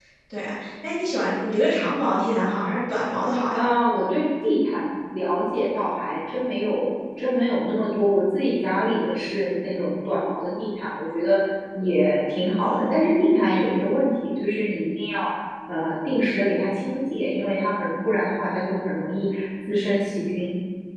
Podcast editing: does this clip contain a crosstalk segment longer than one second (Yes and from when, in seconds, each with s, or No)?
No